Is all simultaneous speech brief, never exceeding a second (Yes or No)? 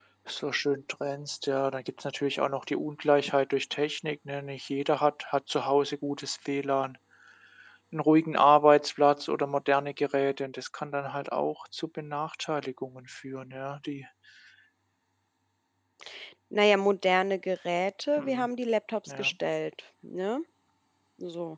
Yes